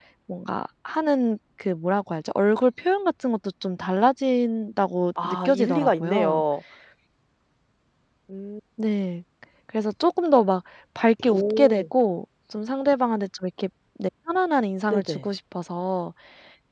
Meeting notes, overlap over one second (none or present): present